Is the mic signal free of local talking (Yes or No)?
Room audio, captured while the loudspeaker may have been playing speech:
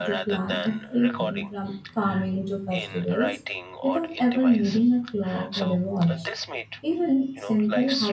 No